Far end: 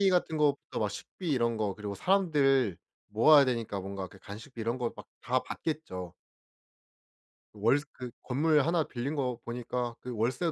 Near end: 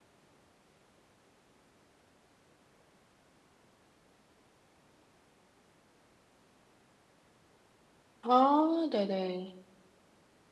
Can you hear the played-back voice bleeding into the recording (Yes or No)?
No